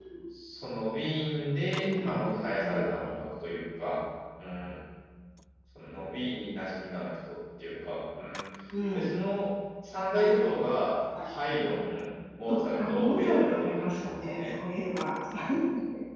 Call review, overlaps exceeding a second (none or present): present